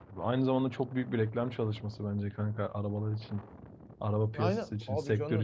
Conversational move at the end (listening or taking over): taking over